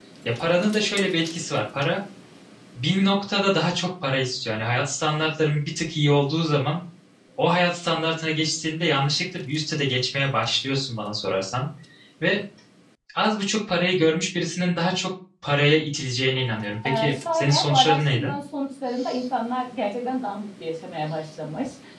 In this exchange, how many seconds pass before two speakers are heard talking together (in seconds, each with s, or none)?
16.8 s